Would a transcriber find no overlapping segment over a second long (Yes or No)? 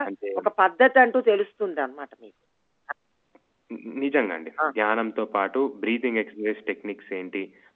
Yes